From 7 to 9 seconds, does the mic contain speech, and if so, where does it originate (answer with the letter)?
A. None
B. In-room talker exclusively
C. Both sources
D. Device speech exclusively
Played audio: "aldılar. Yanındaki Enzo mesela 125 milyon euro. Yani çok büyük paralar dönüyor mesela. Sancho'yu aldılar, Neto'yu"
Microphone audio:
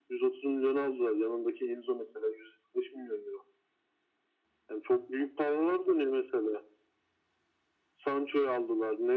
D